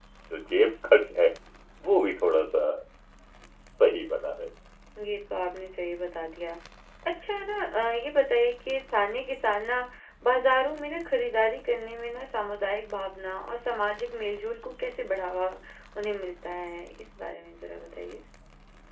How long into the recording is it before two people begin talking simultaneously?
none

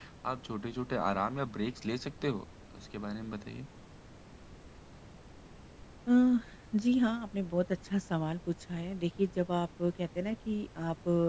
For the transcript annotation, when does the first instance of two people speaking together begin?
none

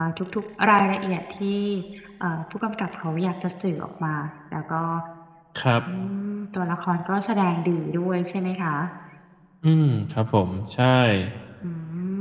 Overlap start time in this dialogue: none

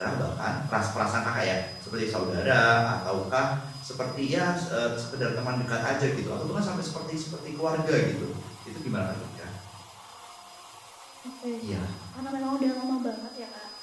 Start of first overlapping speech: none

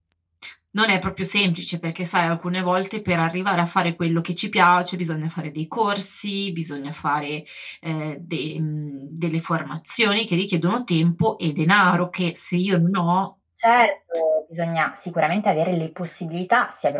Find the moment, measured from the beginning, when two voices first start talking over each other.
none

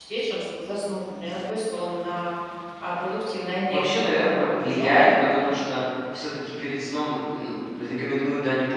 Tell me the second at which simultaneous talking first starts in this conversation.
3.7 s

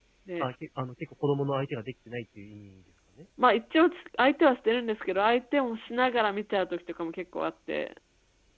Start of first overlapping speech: none

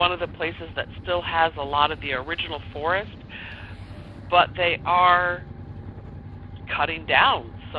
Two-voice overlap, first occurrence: none

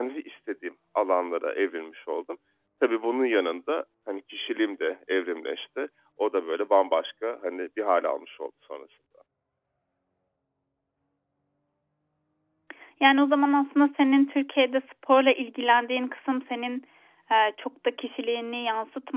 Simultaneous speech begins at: none

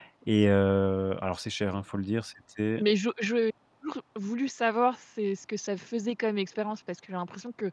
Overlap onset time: none

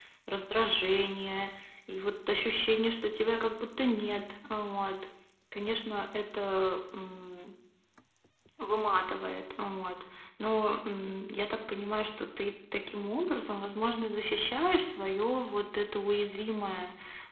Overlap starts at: none

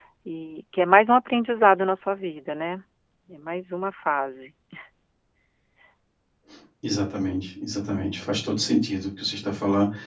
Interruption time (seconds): none

